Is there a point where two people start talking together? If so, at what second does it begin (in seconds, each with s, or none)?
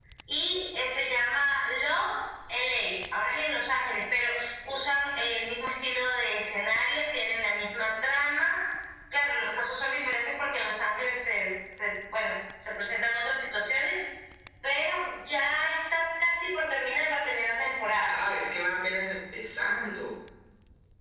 none